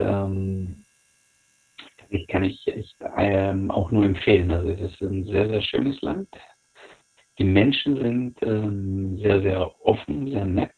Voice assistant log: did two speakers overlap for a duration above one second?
No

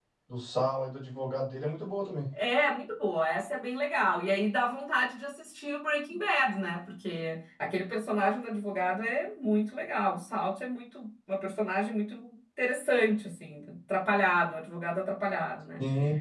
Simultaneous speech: No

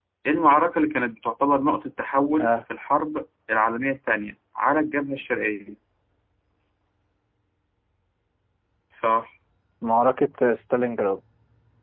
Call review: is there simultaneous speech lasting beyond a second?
No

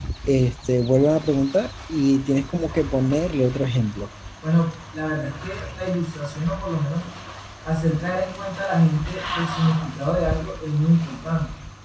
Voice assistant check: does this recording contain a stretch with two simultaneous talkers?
No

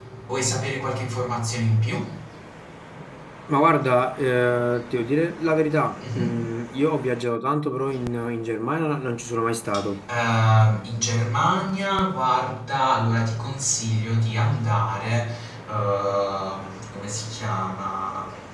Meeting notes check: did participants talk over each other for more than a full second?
No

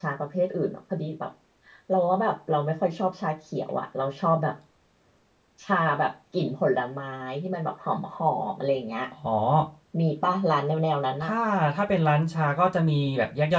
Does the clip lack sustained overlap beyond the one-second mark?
Yes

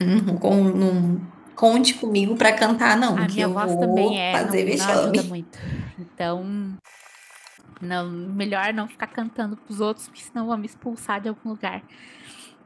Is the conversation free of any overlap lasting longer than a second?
No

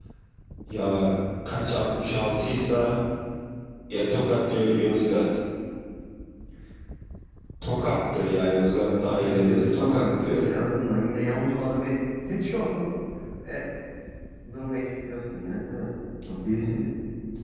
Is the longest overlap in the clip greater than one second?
Yes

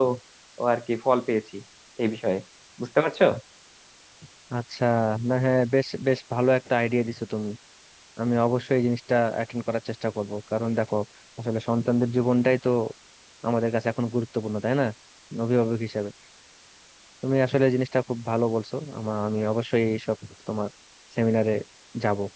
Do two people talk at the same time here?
No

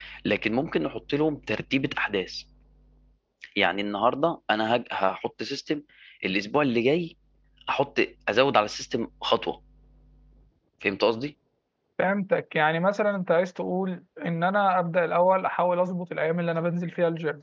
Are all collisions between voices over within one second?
Yes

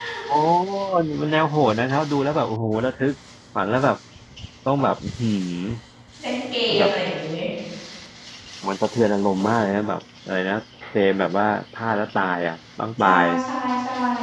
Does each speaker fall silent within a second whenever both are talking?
Yes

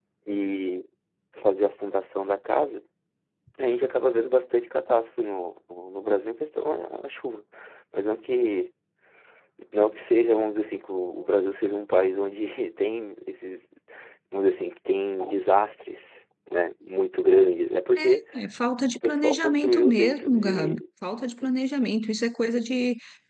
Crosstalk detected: Yes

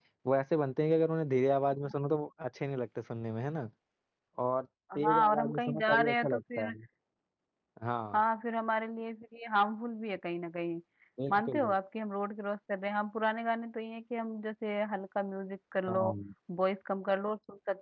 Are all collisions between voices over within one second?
No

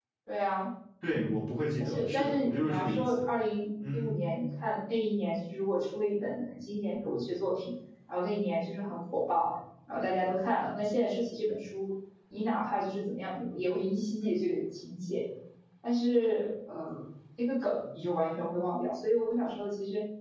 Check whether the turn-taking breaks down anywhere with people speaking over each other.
Yes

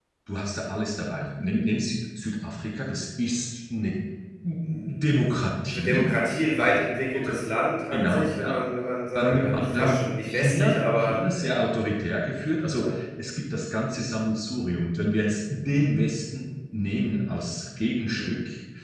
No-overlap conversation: No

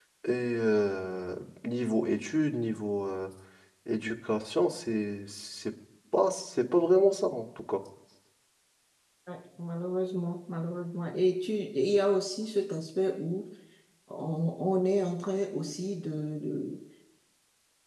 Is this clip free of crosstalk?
Yes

